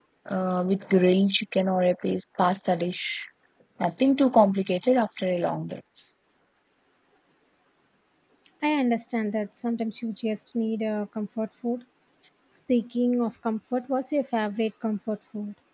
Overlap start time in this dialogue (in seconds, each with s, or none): none